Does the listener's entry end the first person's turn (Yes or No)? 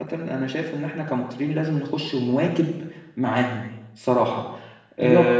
Yes